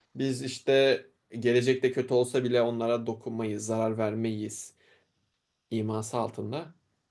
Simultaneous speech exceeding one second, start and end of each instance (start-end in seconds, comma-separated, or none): none